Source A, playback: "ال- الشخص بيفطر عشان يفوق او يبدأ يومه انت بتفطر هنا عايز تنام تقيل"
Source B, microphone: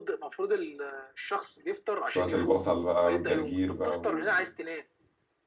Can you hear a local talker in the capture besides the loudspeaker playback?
Yes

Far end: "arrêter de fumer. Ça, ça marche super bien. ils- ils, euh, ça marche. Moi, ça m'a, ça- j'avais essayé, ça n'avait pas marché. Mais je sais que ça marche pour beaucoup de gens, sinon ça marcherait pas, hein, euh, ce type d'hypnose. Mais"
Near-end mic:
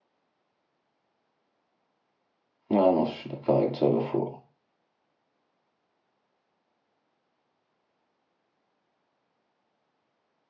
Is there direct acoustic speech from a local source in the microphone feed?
Yes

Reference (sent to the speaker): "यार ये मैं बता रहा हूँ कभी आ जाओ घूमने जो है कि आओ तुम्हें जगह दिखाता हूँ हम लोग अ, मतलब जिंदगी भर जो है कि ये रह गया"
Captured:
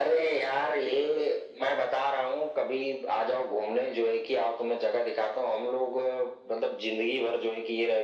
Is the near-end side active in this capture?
No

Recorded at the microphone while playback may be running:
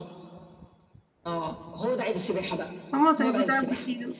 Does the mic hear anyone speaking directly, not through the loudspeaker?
Yes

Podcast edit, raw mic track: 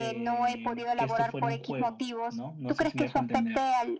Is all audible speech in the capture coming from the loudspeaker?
No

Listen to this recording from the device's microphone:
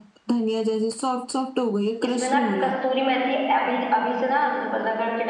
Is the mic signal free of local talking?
No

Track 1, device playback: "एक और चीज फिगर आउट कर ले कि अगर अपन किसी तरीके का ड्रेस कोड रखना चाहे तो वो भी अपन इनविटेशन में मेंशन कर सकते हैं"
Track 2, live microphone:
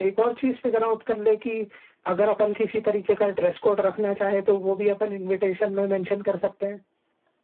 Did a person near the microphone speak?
No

